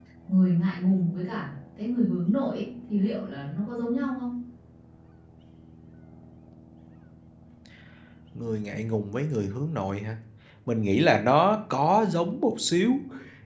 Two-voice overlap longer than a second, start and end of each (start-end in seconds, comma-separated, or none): none